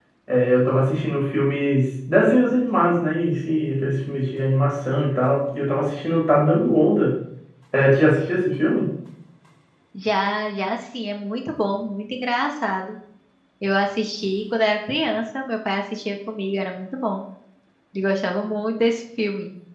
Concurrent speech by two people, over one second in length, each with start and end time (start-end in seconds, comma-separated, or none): none